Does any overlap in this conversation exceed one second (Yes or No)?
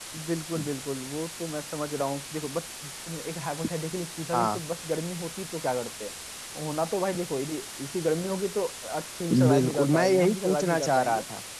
Yes